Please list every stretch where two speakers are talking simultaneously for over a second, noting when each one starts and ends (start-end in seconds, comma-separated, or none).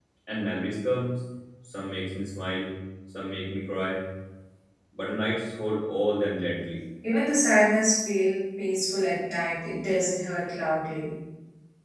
none